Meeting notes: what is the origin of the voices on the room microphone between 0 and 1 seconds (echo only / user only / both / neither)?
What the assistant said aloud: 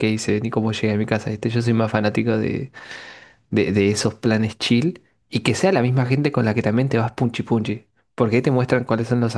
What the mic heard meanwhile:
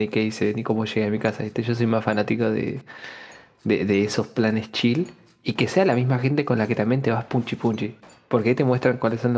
echo only